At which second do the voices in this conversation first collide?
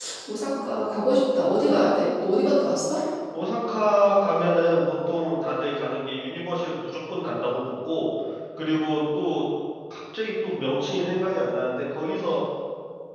none

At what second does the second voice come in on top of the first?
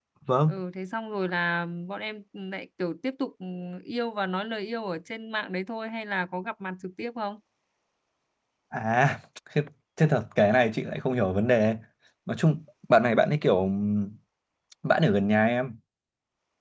none

